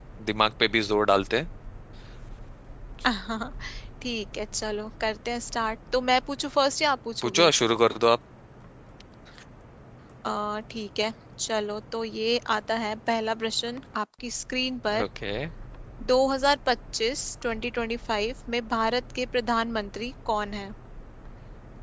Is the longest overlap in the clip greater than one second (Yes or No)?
No